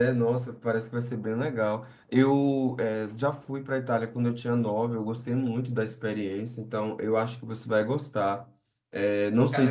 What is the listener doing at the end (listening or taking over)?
listening